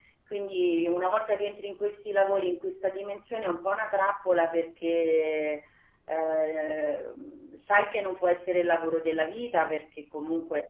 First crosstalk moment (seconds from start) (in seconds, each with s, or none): none